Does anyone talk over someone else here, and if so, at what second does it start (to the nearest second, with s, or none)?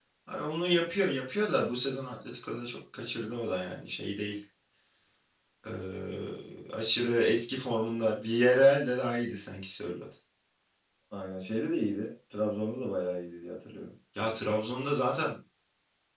none